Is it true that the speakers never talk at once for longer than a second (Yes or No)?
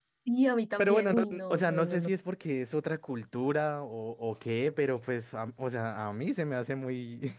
No